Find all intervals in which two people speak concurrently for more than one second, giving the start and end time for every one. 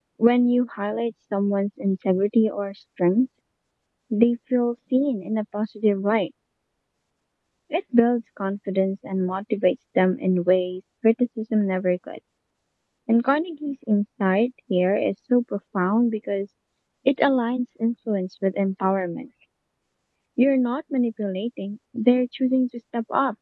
none

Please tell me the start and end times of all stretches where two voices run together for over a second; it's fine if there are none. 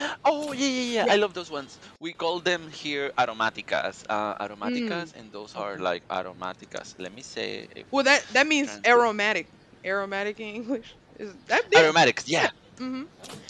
none

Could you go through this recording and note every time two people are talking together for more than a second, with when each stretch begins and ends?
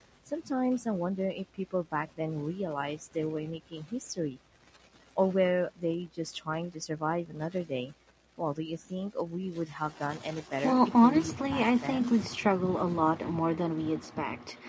10.6-12.2

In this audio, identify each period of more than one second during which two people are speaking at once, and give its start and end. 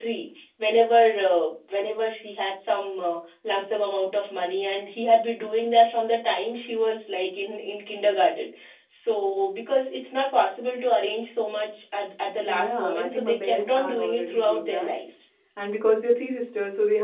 12.5-14.9

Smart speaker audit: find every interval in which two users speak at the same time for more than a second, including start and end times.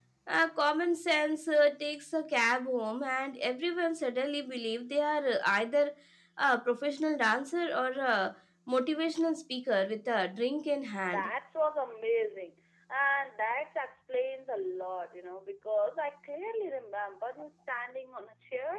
none

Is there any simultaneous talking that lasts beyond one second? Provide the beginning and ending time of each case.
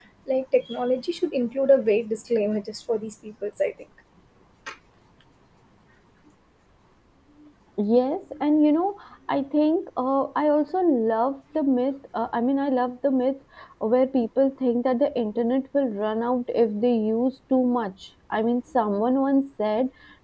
none

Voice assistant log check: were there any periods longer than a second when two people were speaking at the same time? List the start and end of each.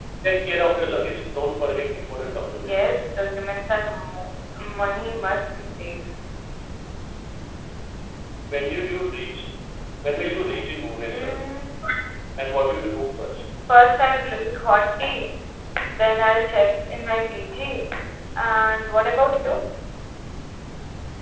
none

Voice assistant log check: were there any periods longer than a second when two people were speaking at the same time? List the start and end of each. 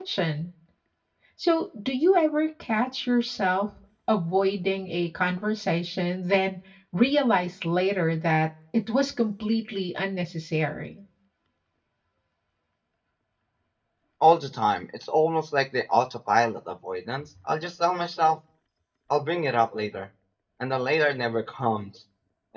none

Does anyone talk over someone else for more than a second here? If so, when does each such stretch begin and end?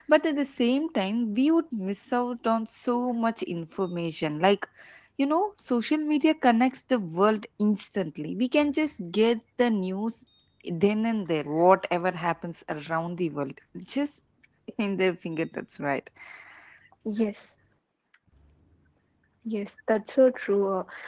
none

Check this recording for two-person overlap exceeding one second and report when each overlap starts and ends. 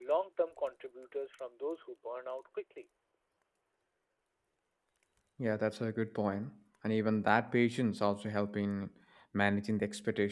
none

